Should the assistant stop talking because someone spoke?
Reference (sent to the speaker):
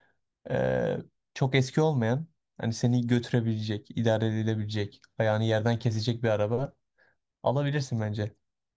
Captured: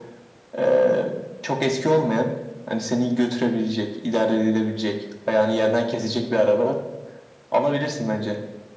No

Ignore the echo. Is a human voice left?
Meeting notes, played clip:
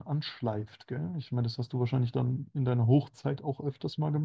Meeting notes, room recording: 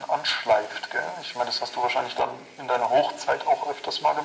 No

